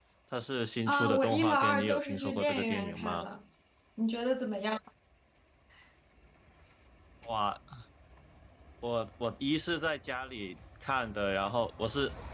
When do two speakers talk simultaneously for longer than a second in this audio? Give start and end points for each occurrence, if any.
0.9-3.2

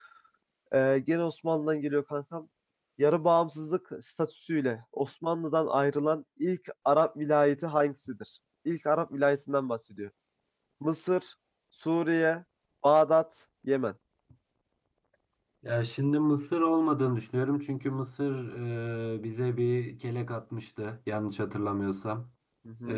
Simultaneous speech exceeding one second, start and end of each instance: none

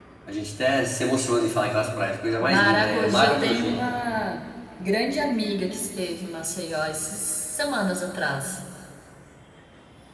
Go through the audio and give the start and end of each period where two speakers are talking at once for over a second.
2.4-3.8

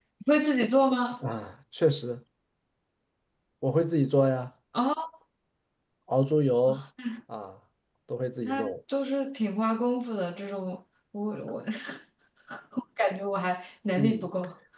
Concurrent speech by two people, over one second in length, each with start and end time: none

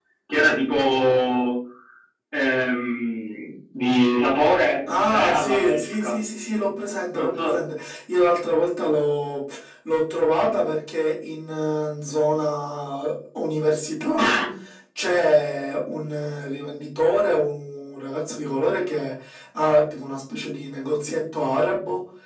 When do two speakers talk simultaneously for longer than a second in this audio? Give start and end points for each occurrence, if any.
4.9-6.1

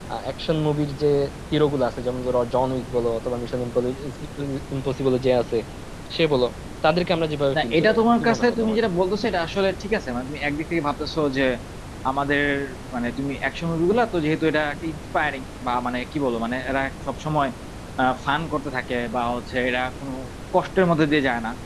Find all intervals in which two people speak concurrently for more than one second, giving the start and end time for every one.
7.5-8.8

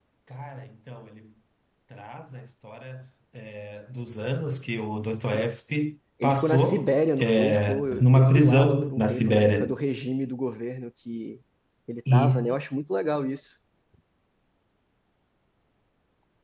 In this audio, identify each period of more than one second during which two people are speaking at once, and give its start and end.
6.2-9.8

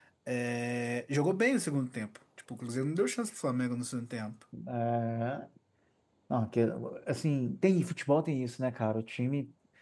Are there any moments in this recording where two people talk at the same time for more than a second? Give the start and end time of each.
none

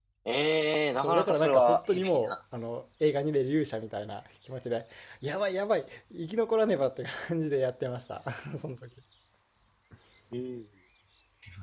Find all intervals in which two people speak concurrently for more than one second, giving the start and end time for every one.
0.9-2.3

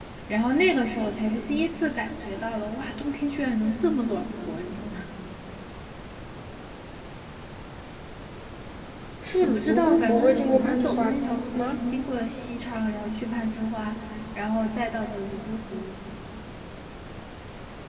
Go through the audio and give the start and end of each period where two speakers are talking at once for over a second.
9.4-11.1

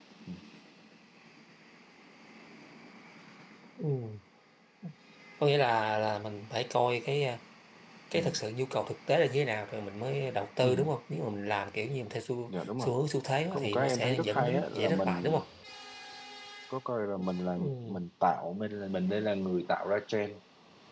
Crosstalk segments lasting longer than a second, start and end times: 13.5-15.4

